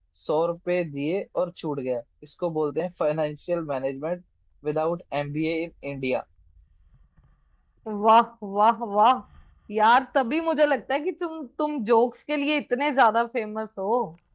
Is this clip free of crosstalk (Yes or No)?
Yes